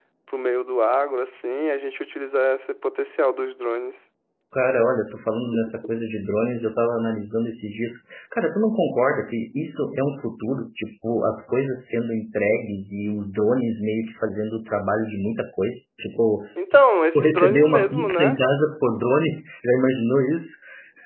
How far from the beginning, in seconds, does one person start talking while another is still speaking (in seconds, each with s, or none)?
17.1 s